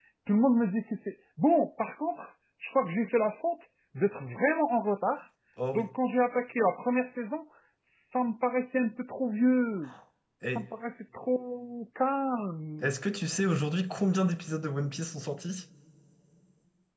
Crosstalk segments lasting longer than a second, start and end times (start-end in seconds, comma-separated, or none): none